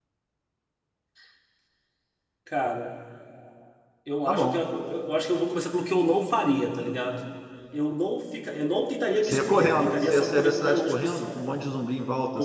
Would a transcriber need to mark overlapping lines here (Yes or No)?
Yes